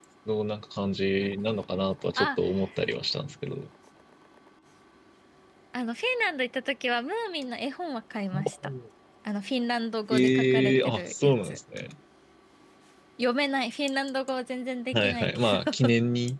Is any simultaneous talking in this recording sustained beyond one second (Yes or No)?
Yes